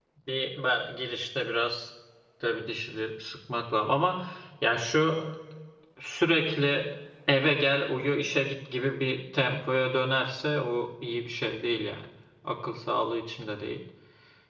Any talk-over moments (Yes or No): No